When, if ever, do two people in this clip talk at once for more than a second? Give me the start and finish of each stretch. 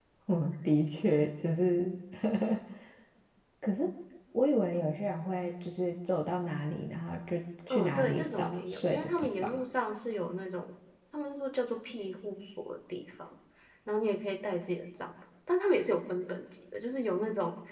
7.7-9.6

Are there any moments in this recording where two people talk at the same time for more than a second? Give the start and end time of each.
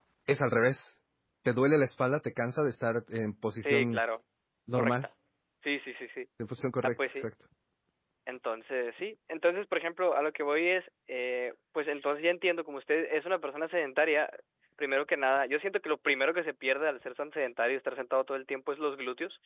none

